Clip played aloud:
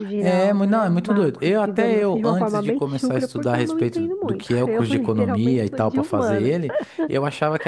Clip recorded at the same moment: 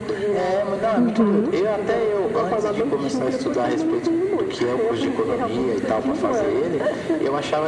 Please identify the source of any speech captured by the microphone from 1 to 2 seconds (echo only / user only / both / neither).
both